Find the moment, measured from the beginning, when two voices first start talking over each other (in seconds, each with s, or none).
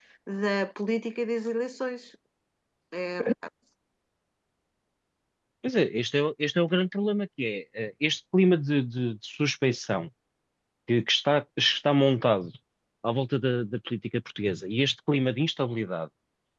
none